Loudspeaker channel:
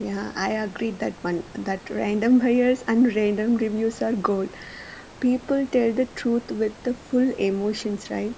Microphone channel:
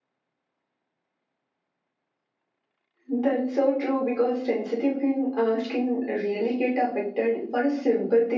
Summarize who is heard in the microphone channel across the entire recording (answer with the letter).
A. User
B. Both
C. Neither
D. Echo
A